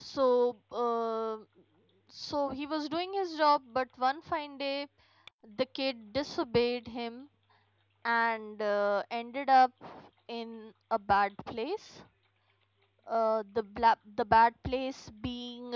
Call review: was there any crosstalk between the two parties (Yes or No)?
No